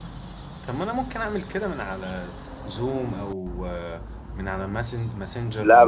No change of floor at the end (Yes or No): No